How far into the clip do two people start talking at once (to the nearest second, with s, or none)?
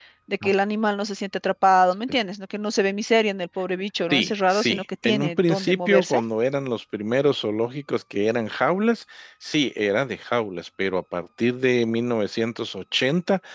4 s